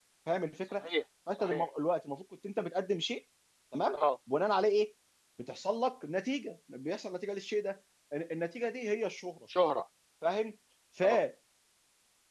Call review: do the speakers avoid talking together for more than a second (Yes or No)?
Yes